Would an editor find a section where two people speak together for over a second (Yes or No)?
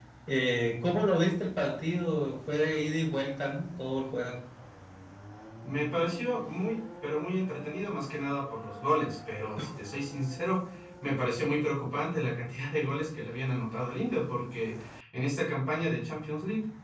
No